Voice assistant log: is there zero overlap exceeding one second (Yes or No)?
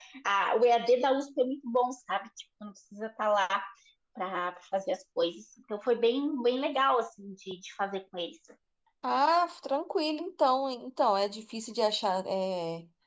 Yes